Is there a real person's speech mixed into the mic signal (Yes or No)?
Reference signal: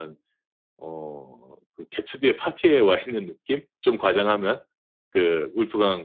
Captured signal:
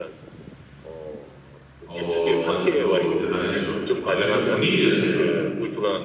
Yes